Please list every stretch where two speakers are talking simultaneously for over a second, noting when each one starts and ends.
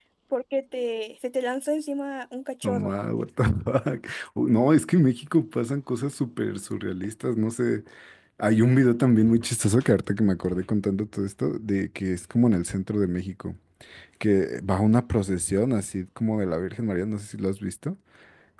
none

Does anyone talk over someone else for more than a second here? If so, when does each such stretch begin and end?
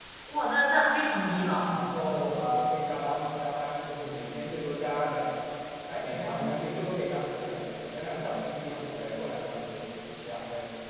none

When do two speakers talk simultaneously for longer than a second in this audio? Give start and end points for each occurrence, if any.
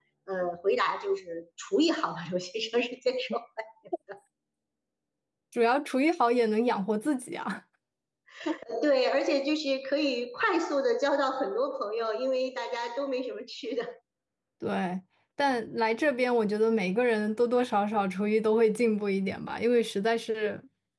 none

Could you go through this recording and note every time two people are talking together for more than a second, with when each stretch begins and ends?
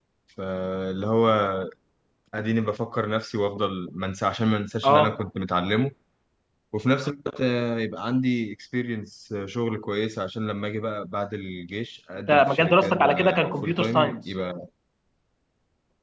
12.3-14.2

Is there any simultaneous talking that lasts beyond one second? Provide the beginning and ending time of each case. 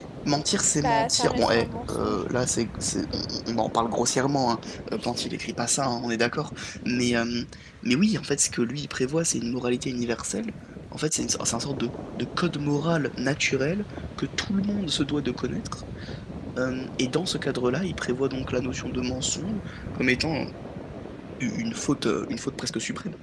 0.8-2.2

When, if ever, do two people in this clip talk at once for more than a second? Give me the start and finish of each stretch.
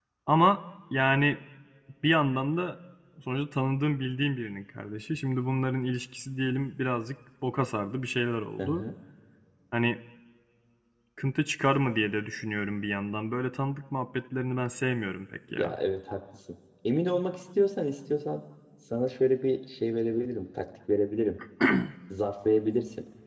none

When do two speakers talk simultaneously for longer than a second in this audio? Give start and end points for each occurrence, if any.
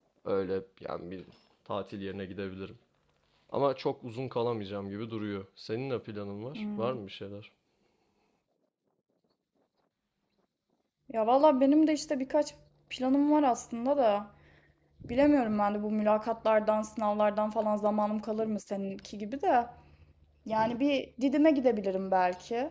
none

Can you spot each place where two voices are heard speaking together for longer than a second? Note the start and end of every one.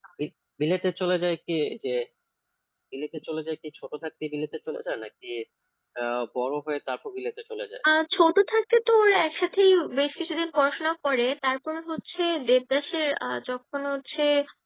none

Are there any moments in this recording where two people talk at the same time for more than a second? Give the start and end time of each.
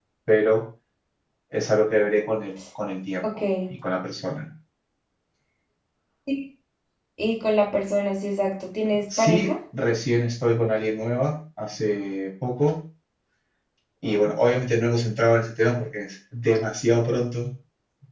none

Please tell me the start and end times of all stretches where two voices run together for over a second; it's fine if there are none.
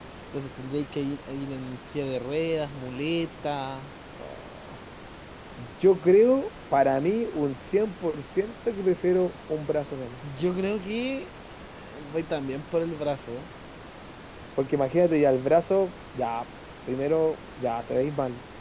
none

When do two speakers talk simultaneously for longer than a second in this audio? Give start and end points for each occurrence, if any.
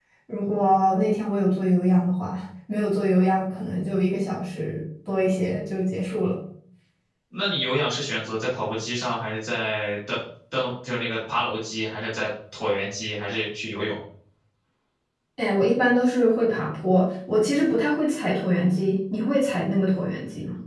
none

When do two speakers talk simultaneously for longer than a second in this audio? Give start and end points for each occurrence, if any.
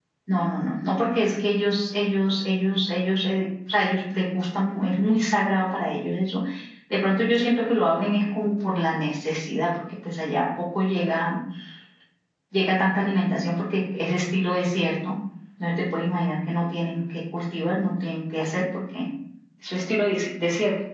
none

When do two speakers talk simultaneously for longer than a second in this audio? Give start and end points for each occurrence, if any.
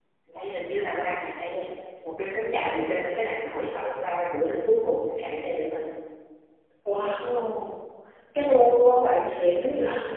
none

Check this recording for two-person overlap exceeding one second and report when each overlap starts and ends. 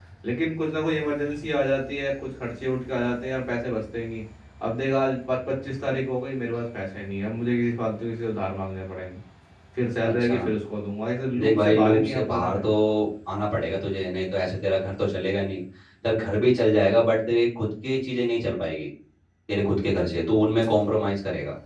11.4-12.7

